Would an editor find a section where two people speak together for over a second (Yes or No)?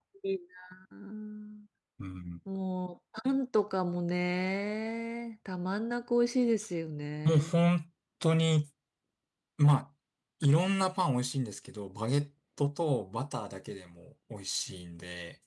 No